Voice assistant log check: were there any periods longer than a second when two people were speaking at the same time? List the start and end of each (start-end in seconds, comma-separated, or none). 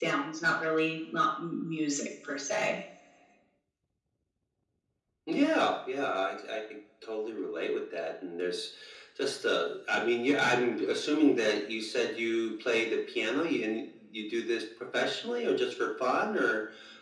none